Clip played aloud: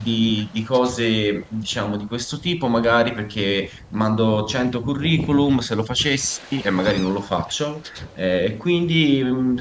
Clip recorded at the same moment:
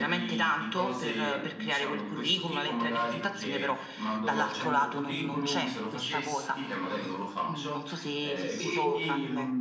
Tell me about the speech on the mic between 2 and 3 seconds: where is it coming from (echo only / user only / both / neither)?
both